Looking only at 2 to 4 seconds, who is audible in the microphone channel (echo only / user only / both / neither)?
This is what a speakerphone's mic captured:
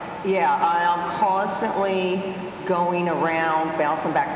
echo only